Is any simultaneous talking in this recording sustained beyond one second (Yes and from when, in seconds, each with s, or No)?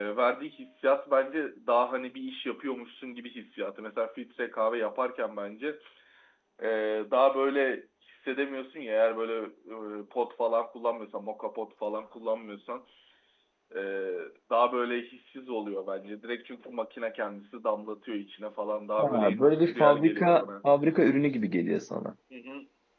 Yes, from 19.0 s